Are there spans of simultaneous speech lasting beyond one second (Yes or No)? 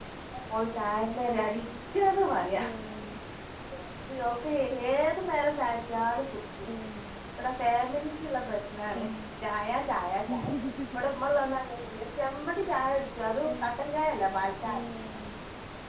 No